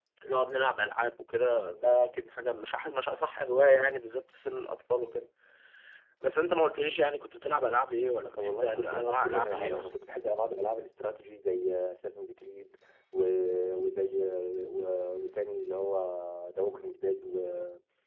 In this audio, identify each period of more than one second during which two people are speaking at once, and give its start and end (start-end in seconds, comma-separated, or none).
8.4-9.9